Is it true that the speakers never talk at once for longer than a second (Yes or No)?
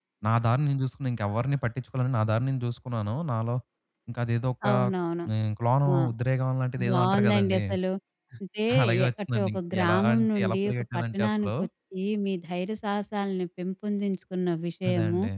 No